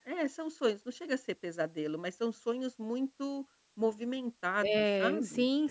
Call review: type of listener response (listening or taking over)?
taking over